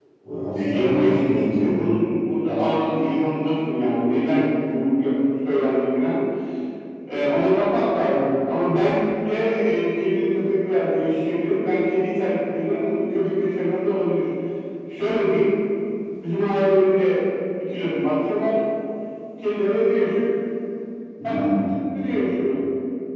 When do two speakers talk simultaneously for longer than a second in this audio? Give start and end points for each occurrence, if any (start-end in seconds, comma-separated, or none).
0.6-1.8